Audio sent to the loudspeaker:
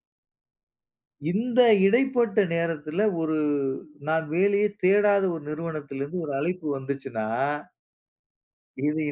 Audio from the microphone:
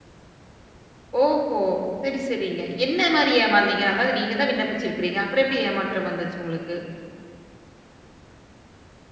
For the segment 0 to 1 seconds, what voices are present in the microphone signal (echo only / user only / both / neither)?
neither